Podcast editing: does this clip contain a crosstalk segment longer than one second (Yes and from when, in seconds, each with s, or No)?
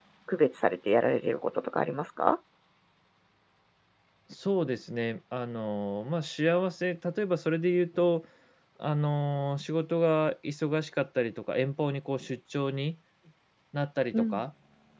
No